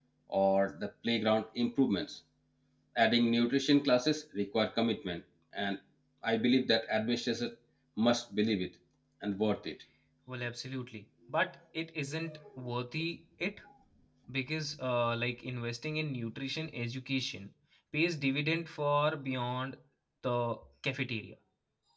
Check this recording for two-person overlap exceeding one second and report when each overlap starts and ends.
none

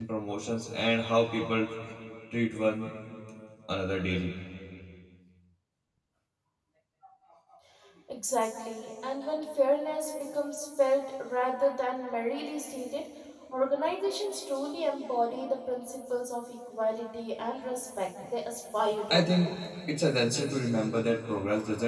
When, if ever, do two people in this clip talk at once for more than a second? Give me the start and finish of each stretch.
none

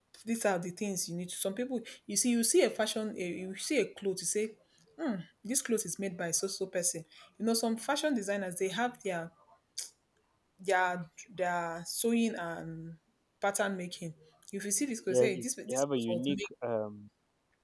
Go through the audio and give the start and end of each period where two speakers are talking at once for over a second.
15.1-16.5

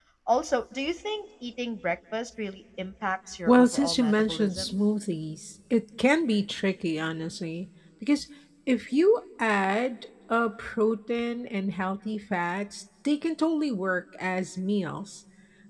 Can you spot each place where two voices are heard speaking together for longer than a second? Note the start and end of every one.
3.5-4.7

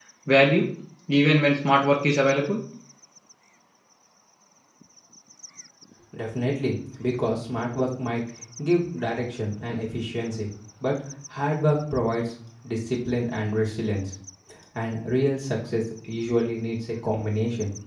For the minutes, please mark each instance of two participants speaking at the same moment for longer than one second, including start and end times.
none

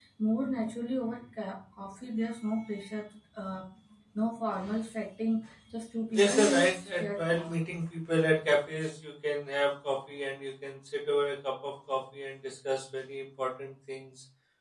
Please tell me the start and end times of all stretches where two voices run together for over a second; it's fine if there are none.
6.1-7.6

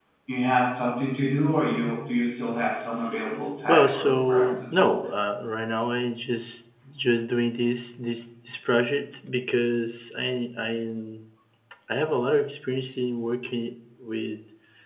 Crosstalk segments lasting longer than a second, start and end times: 3.7-4.9

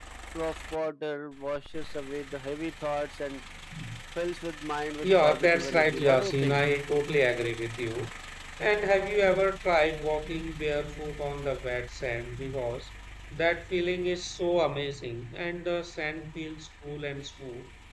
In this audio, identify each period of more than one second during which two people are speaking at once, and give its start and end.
5.0-6.6

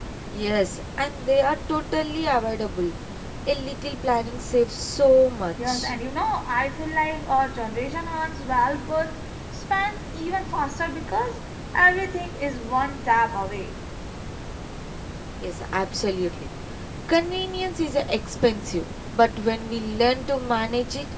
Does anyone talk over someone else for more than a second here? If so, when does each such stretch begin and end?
none

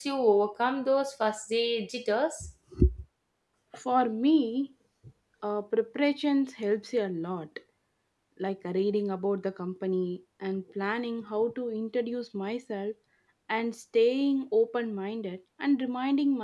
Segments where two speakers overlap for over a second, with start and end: none

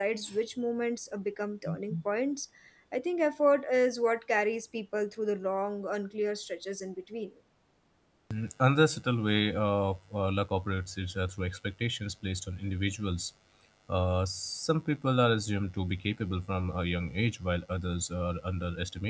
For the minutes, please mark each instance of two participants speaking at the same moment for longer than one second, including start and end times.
none

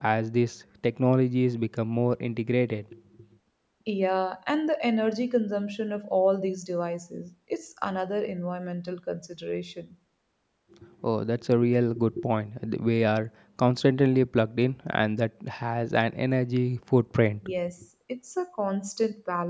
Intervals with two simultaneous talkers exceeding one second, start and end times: none

